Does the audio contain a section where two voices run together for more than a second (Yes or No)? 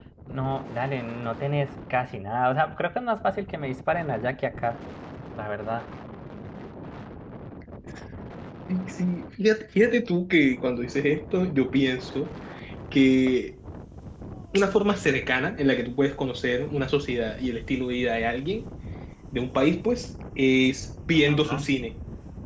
No